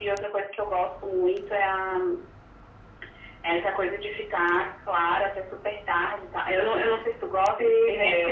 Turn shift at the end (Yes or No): Yes